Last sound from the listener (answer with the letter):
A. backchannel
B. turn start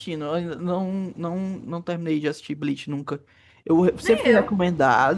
A